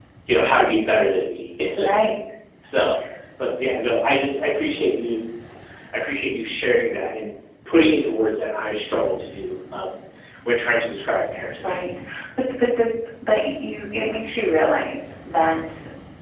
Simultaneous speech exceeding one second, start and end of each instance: none

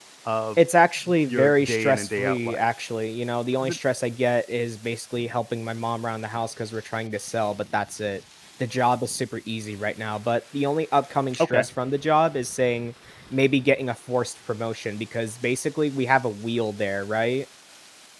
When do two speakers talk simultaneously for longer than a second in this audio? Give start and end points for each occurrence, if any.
1.2-2.6

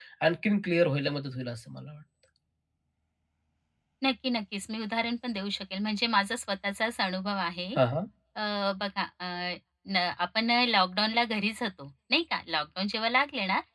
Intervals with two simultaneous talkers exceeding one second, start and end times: none

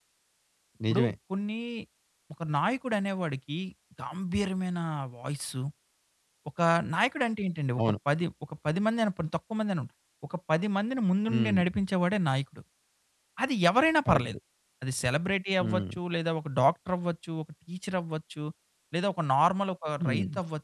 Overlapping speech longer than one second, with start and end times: none

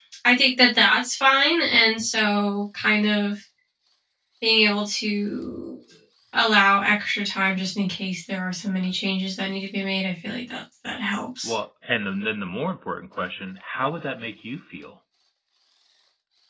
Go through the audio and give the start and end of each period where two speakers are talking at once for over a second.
none

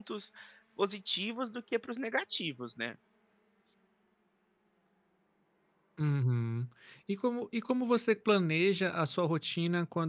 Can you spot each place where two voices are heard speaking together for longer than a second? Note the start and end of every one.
none

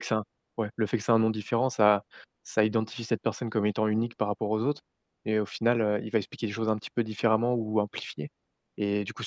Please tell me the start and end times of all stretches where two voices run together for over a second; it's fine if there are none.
none

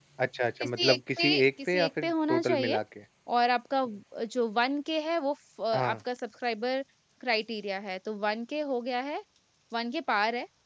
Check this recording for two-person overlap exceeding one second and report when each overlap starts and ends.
0.6-2.8

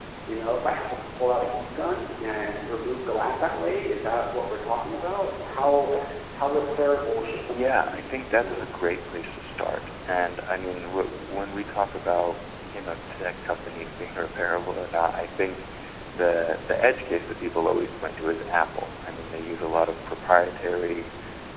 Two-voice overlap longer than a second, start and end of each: 7.5-8.7

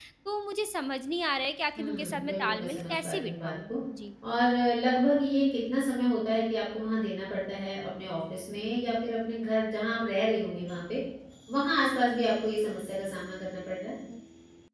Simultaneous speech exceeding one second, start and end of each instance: 1.8-3.7

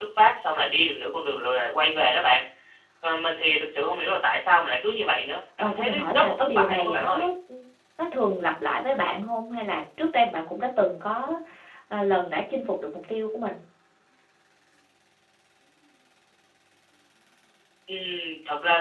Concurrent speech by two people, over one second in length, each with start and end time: 5.6-7.3

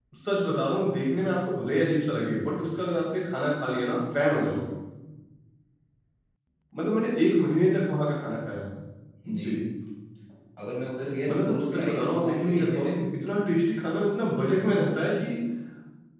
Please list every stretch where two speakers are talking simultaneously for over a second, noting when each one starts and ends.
11.3-12.9

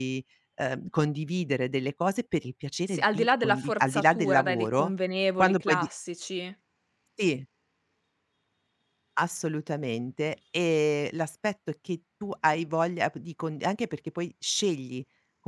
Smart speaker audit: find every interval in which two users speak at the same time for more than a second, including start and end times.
2.9-4.9

